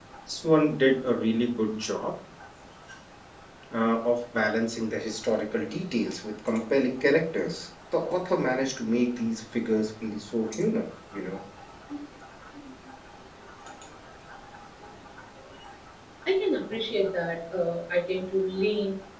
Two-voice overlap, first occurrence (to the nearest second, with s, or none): none